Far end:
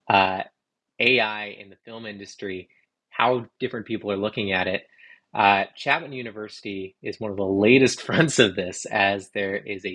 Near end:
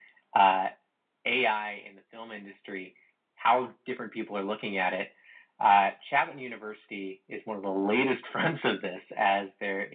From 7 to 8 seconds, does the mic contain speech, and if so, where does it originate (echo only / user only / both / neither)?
echo only